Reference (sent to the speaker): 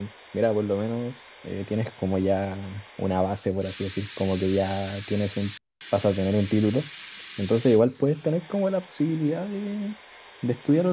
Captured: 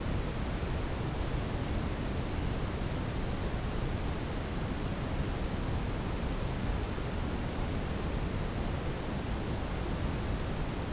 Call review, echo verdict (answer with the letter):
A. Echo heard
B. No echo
B